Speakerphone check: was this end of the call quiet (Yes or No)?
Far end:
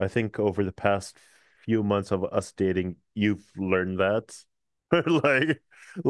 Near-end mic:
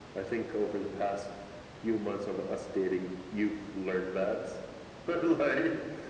Yes